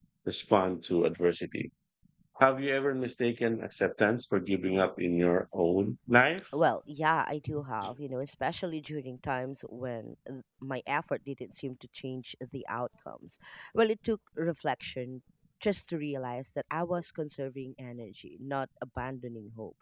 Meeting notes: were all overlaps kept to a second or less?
Yes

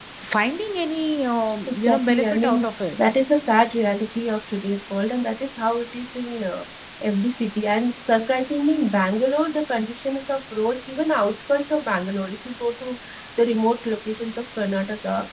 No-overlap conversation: No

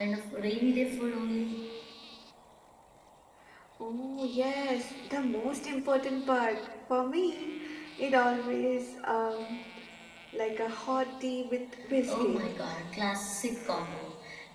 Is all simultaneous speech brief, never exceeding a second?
Yes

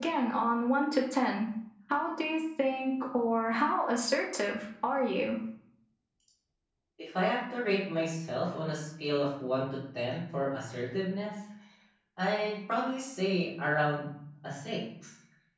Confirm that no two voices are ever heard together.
Yes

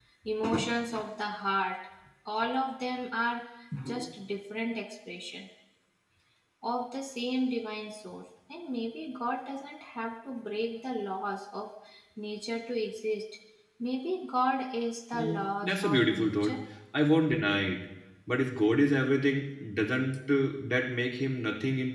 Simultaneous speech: Yes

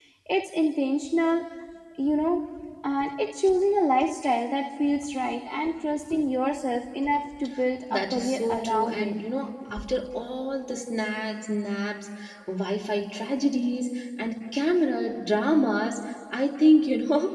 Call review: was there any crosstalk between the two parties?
Yes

